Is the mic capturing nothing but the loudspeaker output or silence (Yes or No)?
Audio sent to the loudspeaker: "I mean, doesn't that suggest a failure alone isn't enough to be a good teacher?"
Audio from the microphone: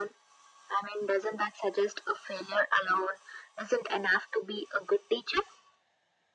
Yes